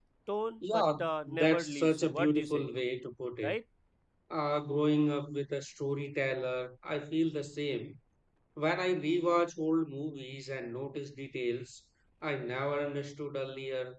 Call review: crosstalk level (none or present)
present